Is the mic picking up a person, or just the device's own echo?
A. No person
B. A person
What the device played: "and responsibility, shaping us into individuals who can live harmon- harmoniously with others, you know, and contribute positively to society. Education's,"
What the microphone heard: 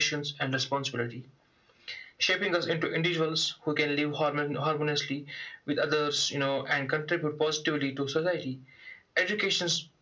A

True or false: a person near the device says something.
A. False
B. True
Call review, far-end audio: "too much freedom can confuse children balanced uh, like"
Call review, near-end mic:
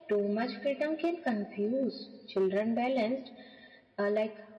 A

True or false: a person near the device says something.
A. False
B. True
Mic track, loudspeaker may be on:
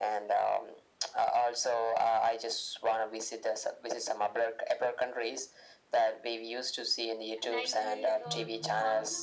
B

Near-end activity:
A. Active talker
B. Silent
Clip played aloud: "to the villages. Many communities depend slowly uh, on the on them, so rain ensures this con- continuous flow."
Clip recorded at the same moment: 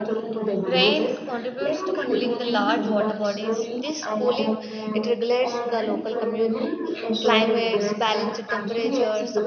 A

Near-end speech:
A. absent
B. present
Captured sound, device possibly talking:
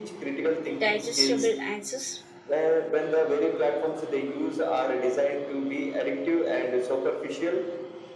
B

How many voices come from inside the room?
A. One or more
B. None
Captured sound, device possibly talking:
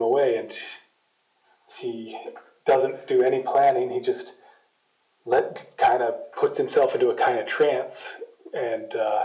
B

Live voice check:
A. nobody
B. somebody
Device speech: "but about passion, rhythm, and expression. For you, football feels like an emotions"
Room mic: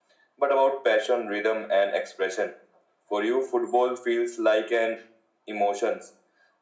A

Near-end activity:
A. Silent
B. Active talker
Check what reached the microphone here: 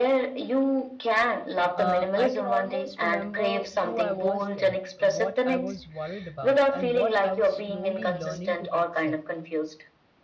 B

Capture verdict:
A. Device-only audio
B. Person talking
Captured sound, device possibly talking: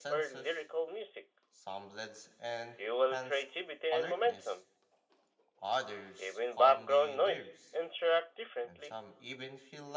B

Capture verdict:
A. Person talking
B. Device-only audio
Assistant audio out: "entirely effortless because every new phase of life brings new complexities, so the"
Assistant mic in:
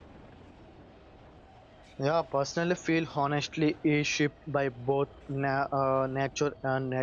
A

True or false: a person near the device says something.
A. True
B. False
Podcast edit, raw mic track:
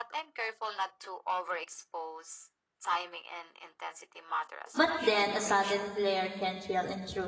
A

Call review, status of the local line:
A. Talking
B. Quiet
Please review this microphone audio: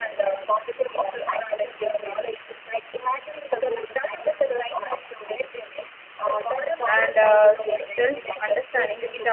A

